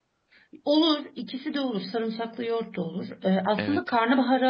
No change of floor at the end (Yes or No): Yes